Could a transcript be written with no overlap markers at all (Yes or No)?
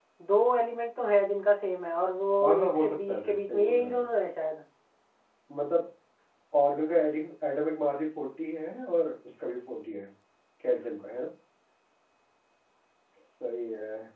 No